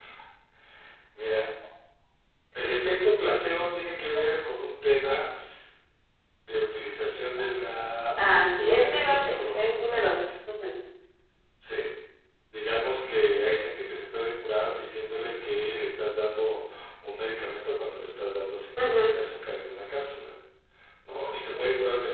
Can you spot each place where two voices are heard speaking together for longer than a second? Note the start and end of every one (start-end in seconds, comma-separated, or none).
8.2-10.2